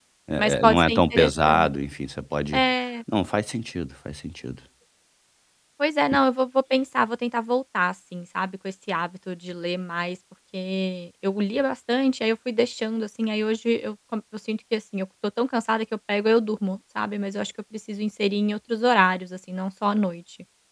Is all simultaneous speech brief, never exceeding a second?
No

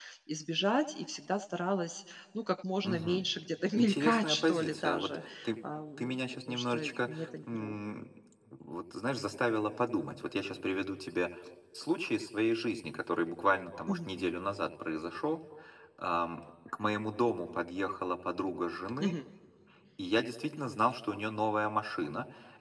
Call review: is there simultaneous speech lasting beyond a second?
Yes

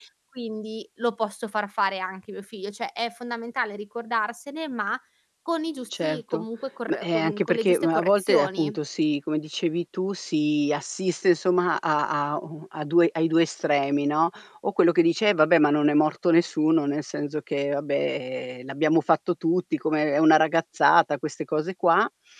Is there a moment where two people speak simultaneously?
Yes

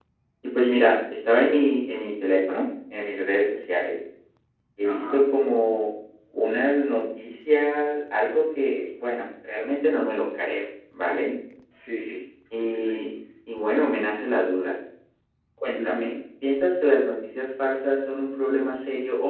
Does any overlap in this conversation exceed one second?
No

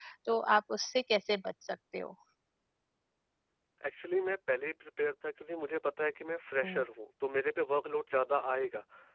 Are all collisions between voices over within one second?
Yes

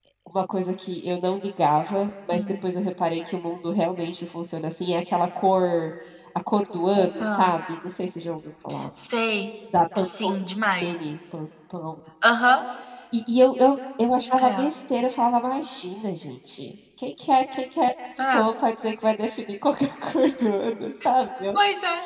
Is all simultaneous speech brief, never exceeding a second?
Yes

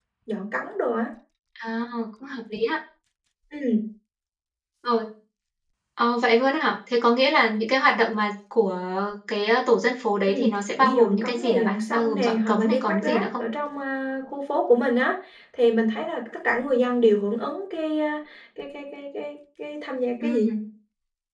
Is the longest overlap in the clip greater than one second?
Yes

